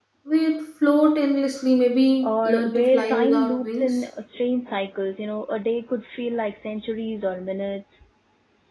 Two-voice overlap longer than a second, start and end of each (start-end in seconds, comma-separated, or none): 2.2-4.0